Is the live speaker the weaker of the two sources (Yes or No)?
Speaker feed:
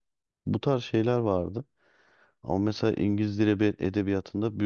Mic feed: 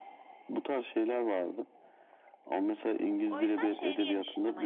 Yes